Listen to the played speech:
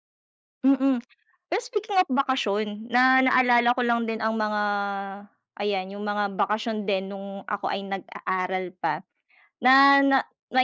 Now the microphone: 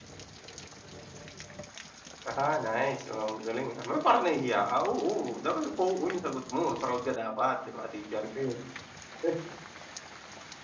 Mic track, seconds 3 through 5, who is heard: user only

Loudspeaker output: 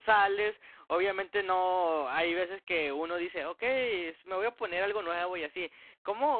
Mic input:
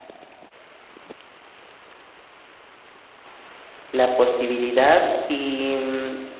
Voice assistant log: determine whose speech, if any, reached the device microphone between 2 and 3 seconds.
neither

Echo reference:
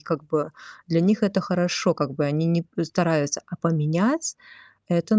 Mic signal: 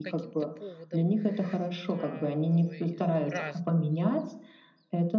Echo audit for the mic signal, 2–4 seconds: both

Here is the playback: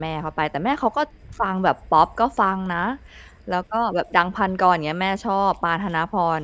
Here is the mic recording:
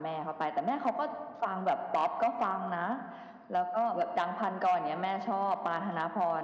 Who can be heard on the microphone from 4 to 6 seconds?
echo only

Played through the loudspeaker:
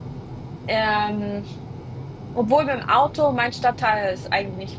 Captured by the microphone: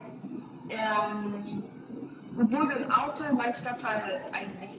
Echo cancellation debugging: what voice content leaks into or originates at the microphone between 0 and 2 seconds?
echo only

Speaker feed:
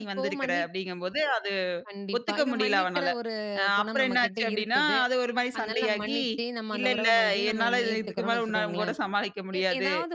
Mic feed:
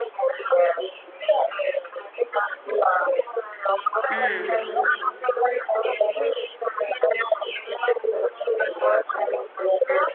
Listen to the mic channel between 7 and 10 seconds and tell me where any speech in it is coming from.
echo only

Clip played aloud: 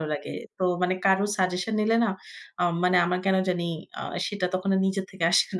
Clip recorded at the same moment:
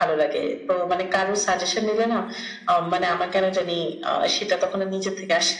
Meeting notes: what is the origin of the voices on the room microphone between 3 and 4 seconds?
echo only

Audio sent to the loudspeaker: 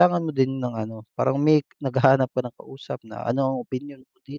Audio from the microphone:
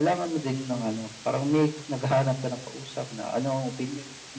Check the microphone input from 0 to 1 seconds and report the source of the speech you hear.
echo only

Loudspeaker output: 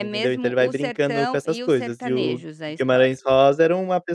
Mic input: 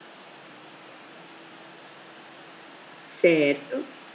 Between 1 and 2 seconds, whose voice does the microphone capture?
neither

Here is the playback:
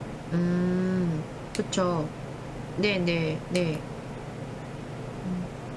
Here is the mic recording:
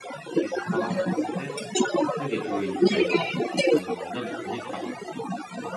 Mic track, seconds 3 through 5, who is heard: both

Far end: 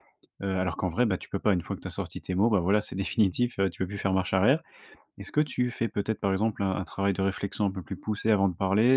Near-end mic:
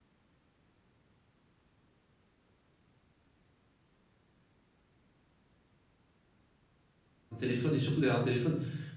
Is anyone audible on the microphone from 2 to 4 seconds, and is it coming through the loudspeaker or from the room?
neither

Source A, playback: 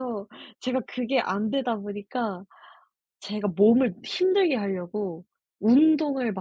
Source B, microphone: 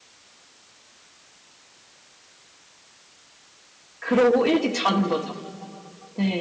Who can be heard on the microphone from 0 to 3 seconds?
neither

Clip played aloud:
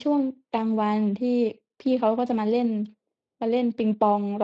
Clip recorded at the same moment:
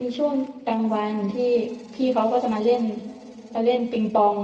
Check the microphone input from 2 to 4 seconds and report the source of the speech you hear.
echo only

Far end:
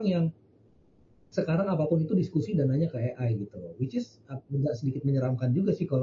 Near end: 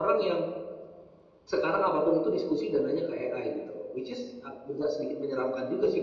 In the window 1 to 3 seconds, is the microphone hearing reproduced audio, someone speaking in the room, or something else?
echo only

